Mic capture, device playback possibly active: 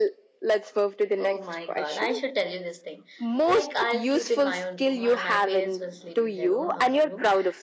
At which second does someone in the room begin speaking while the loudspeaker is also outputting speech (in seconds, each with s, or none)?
none